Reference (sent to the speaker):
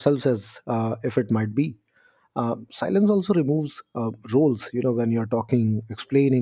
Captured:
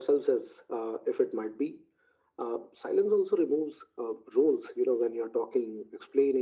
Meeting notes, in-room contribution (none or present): none